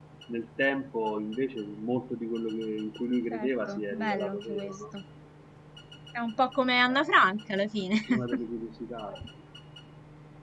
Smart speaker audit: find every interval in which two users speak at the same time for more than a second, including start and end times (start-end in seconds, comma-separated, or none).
3.3-4.7